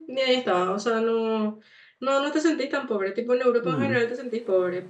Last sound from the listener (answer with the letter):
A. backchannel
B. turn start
A